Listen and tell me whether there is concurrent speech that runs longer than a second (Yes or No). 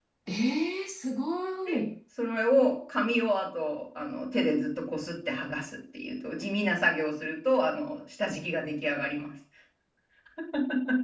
No